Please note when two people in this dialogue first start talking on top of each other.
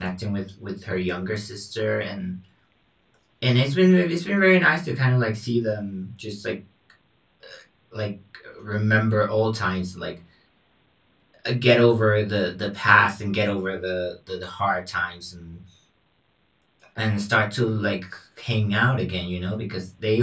none

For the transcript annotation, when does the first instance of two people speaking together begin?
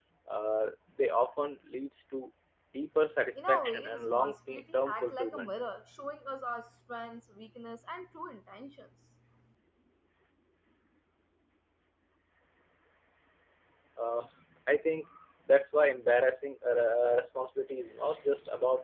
3.4 s

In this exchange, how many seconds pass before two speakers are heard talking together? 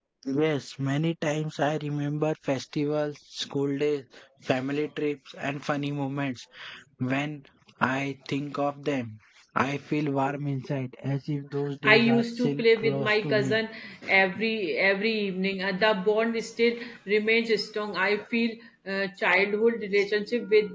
11.8 s

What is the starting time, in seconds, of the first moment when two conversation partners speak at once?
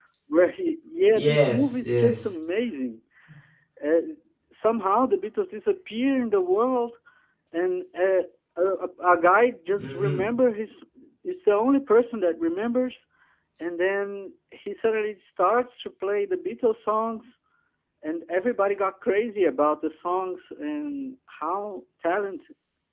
1.1 s

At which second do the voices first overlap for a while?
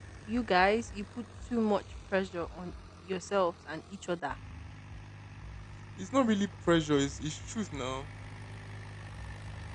none

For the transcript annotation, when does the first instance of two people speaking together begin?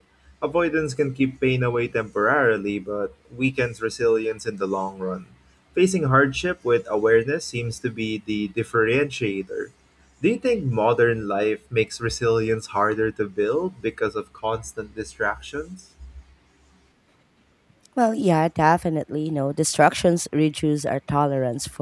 none

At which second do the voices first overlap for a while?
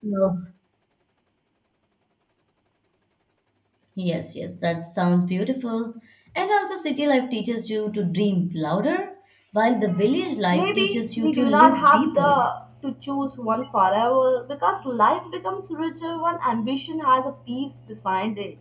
10.5 s

